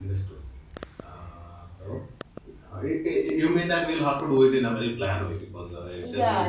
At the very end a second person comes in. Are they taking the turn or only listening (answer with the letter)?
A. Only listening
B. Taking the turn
B